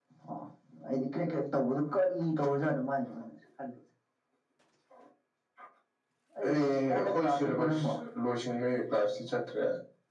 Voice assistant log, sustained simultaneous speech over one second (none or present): present